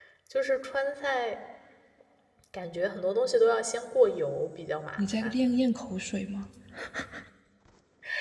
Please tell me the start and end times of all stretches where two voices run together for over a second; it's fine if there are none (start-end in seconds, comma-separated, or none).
none